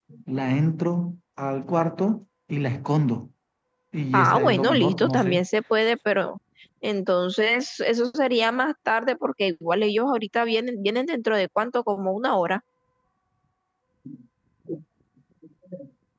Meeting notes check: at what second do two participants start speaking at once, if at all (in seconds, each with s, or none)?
4.1 s